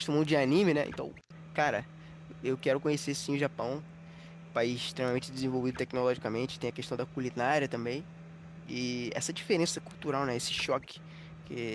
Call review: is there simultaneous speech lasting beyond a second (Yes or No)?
No